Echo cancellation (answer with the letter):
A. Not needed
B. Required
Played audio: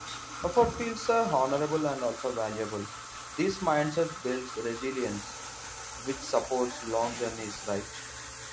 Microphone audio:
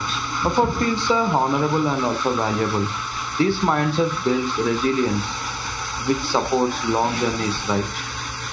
B